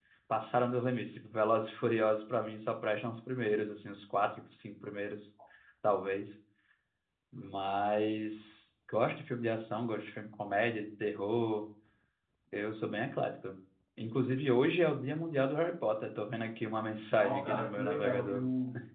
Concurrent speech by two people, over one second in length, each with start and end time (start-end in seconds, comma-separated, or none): 17.2-18.4